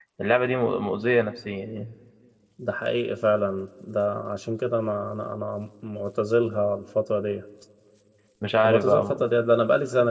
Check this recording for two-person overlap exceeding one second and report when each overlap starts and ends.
none

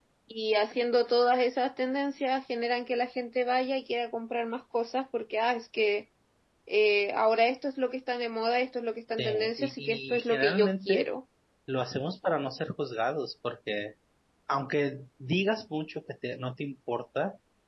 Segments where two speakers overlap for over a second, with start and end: 9.2-11.1

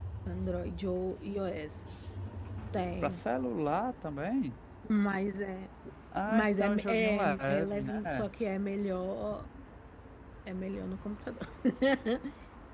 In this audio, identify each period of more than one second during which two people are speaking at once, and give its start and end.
6.3-8.0

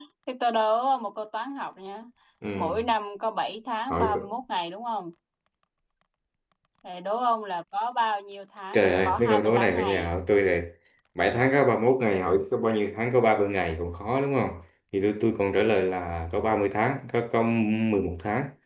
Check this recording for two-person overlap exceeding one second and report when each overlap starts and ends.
8.7-10.1

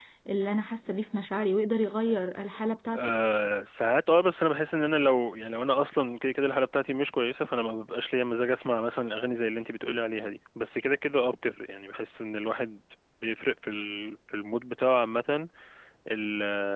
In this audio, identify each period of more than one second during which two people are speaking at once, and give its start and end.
none

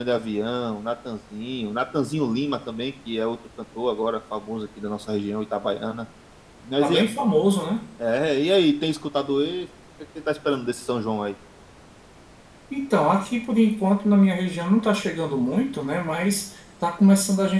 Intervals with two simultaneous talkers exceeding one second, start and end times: none

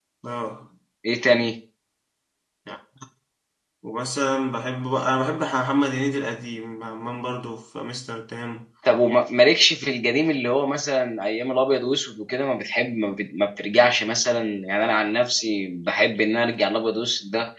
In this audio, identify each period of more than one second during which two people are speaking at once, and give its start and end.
none

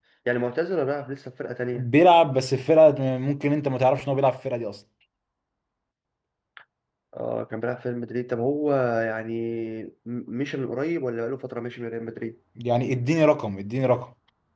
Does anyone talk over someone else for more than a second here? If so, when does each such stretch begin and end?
none

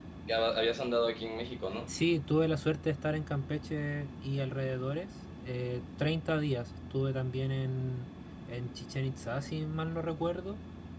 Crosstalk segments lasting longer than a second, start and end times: none

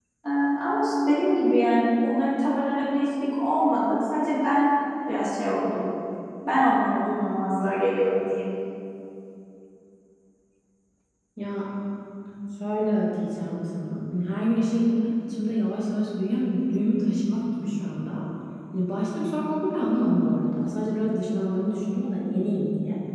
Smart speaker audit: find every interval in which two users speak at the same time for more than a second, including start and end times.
none

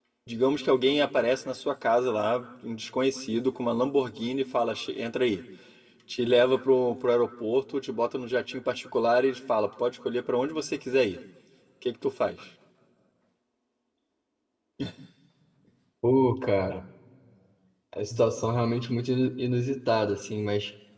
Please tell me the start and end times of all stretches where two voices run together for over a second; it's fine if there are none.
none

